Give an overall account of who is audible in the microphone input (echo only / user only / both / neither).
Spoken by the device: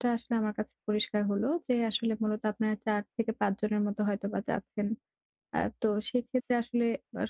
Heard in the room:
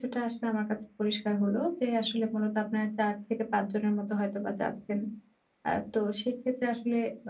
echo only